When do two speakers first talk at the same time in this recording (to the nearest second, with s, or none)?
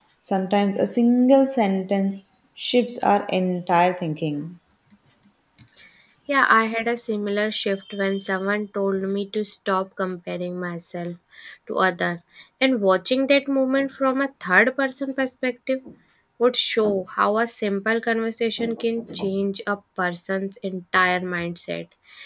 none